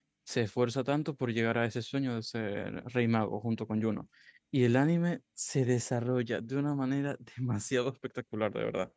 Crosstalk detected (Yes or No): No